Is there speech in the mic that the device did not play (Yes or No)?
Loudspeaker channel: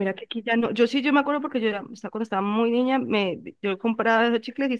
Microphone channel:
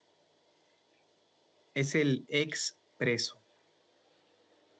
Yes